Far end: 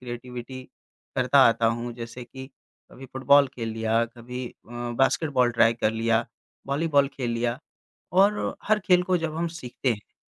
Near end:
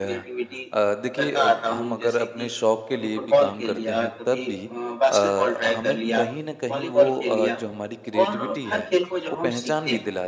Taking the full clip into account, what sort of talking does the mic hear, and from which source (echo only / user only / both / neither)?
both